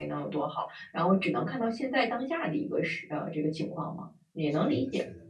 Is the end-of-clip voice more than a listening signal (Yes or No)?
Yes